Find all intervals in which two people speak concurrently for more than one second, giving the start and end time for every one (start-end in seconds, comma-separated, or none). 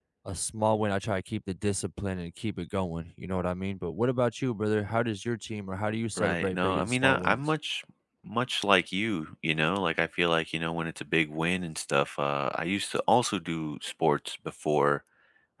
6.2-7.4